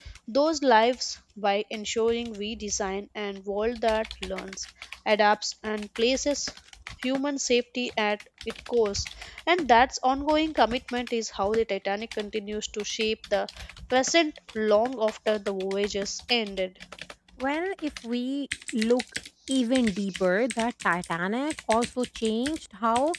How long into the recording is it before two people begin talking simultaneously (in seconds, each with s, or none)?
none